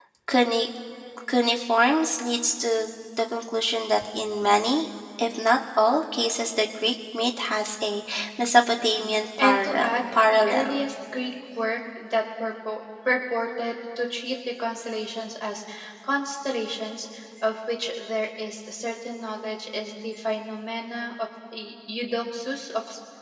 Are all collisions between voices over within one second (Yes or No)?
No